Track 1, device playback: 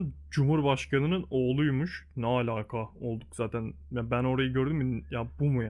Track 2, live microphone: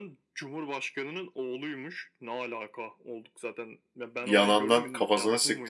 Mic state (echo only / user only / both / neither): both